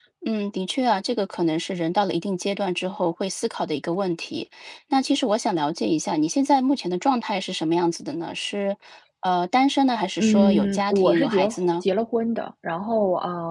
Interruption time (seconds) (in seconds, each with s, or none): 10.2 s